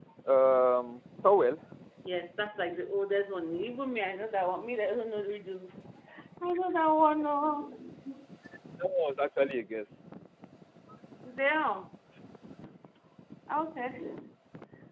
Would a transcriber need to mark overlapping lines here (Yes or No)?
No